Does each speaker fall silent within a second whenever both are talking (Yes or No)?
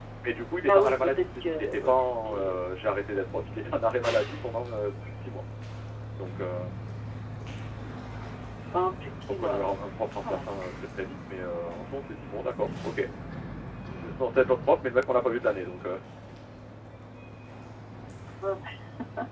No